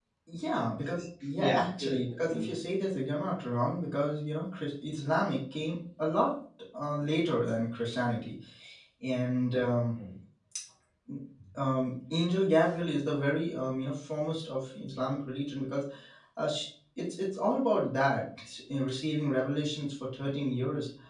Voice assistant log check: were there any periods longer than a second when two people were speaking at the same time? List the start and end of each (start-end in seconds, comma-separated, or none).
1.4-2.6